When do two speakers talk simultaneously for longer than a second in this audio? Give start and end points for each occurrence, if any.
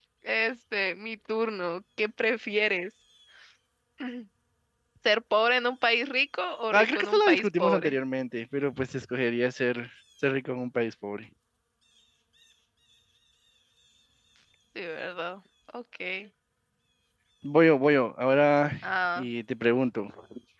6.7-7.9

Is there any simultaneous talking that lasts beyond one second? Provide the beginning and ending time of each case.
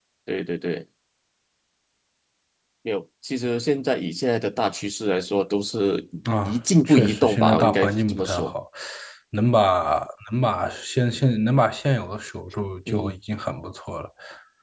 6.5-8.5

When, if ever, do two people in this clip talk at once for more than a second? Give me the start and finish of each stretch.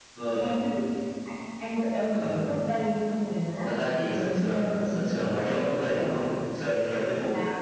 3.8-6.2

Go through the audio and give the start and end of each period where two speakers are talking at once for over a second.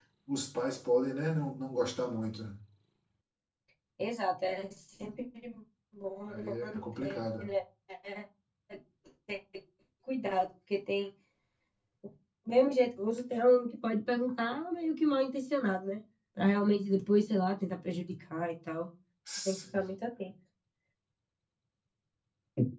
6.3-7.5

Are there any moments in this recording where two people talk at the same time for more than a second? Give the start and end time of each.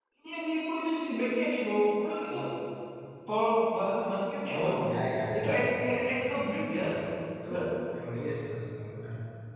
none

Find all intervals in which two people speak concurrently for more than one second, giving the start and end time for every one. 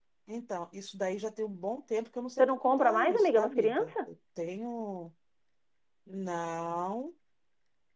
2.4-3.9

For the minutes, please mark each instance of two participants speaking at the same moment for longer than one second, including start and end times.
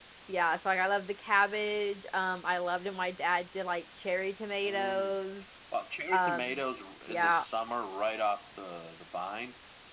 none

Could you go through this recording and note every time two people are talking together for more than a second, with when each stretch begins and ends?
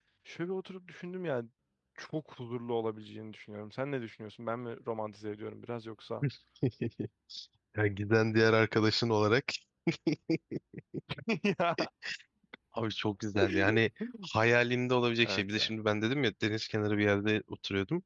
none

